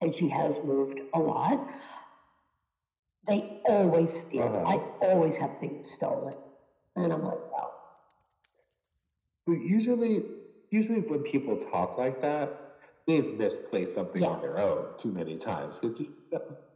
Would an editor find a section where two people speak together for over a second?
No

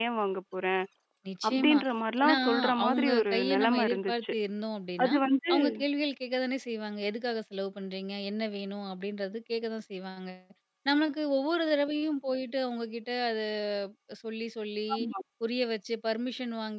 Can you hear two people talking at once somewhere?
Yes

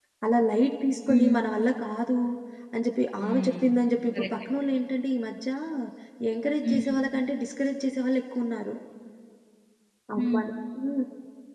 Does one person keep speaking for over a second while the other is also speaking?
No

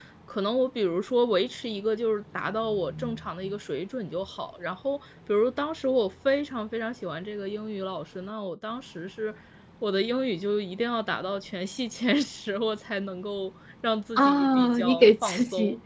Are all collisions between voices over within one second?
No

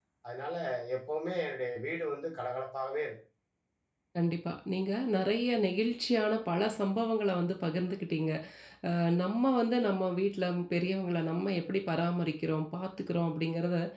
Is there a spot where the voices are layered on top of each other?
No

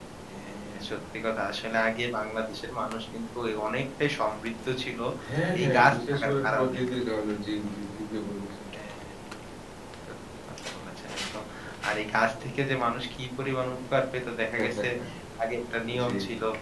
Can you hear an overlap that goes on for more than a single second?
Yes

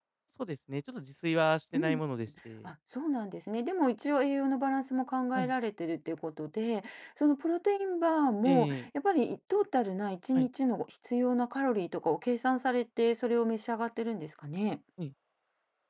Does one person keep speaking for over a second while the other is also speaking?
No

